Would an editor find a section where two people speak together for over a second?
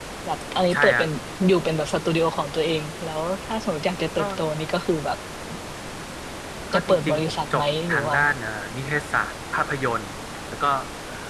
Yes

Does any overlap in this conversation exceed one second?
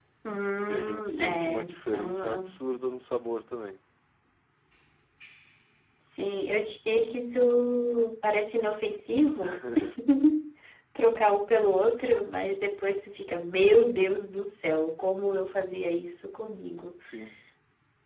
Yes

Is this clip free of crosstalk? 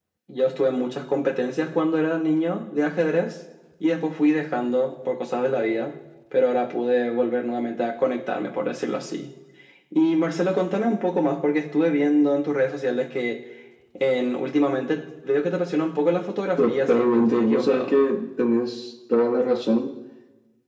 No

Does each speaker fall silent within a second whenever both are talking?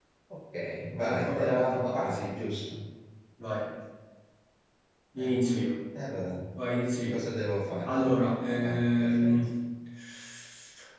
No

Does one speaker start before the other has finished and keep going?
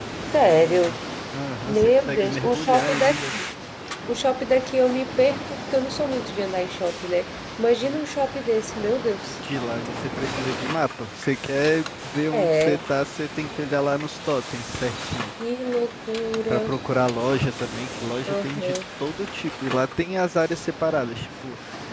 Yes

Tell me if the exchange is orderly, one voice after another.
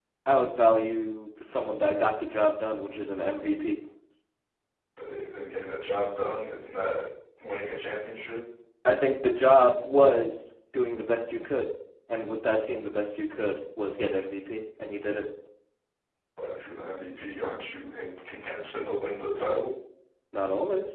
Yes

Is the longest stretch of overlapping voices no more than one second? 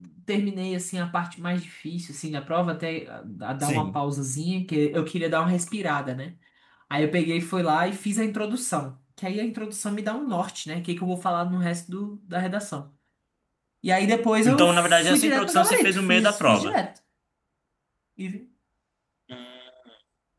No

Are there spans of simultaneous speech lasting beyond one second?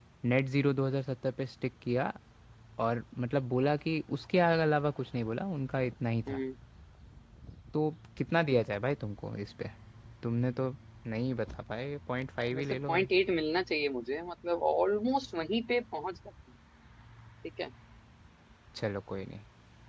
No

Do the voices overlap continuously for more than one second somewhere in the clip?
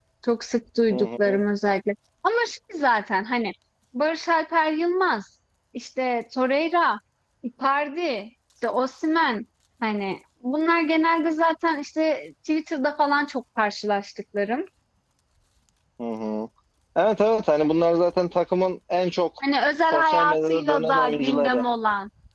Yes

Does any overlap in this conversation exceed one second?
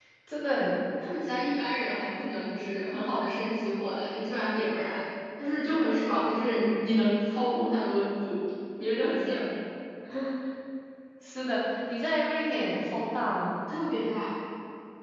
No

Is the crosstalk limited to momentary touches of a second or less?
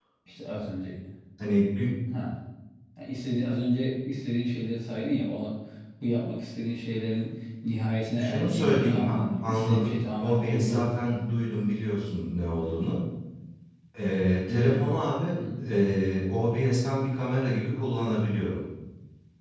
No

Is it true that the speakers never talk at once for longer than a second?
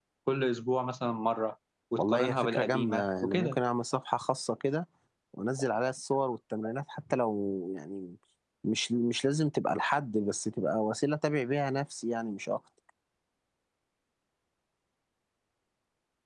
No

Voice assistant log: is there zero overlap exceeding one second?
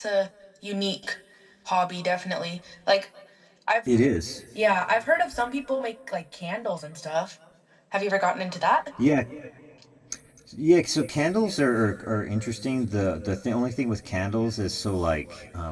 Yes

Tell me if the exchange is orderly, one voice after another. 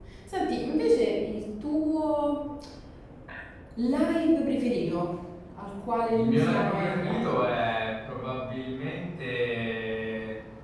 No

